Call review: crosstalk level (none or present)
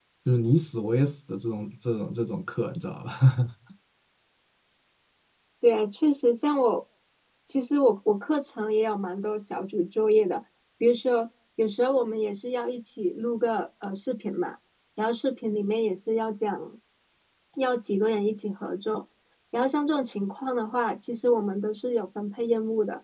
none